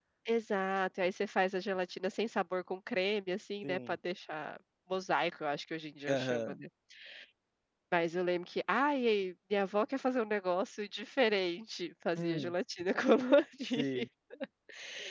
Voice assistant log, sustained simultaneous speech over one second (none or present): none